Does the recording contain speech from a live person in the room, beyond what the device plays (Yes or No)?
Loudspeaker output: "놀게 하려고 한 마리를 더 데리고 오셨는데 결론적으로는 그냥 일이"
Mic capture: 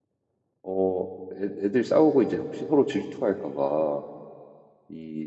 Yes